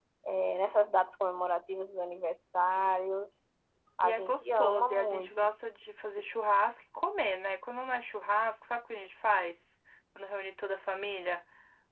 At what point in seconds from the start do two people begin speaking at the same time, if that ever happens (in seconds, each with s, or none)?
4.0 s